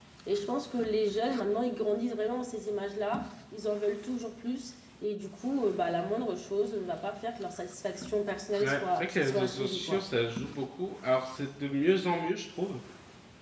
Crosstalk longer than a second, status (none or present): present